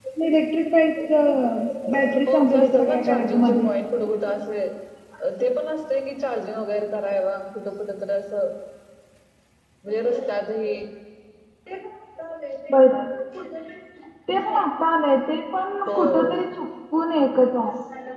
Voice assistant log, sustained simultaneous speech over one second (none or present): present